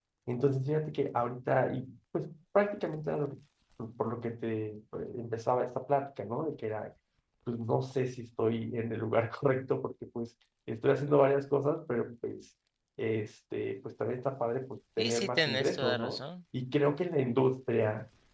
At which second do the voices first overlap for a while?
15 s

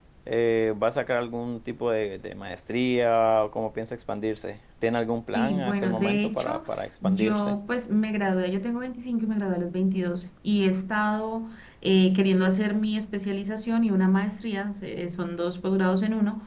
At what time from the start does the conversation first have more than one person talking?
5 s

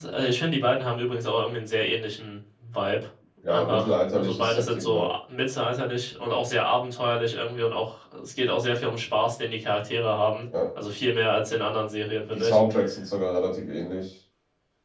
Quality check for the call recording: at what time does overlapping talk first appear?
3 s

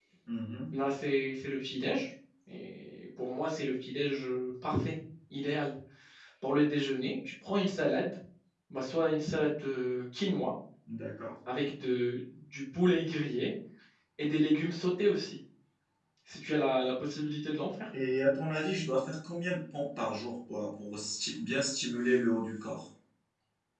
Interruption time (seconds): none

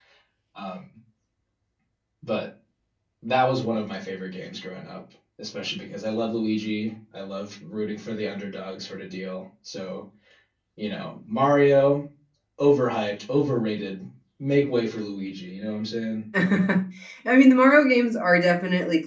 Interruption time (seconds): none

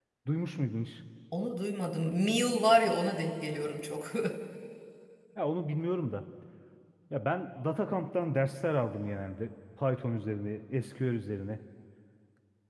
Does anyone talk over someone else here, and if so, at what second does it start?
none

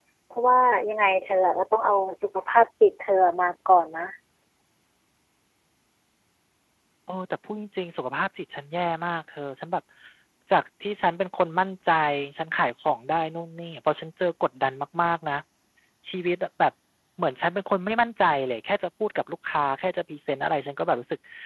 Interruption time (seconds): none

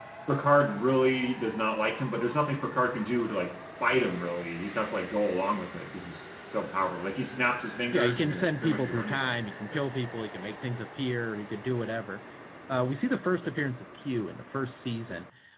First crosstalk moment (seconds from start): 8 s

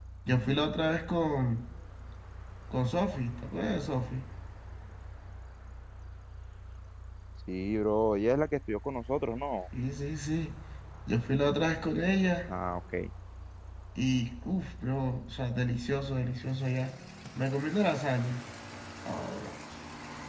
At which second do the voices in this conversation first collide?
none

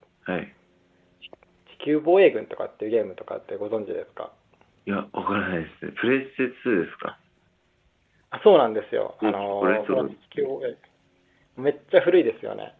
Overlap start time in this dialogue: 9 s

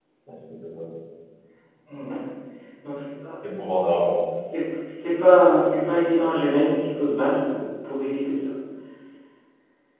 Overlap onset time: none

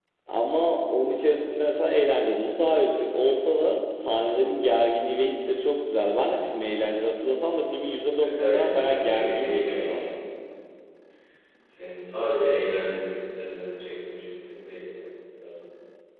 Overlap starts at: 8 s

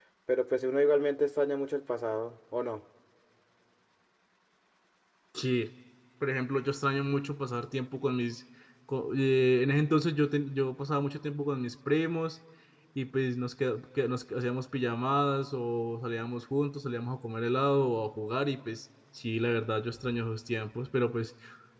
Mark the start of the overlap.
none

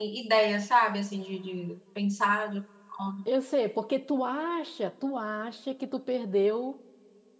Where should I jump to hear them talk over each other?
none

